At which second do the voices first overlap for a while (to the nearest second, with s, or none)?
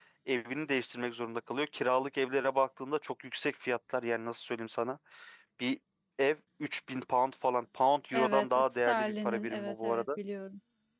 8 s